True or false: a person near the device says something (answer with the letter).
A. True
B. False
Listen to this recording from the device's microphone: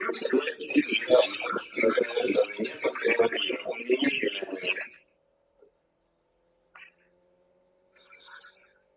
B